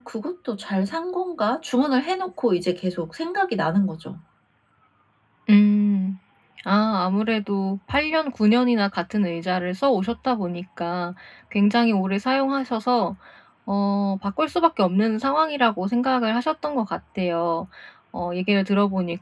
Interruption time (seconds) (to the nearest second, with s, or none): none